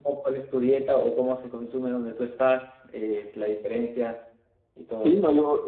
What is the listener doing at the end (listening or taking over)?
taking over